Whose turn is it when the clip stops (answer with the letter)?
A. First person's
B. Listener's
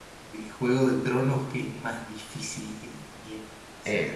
B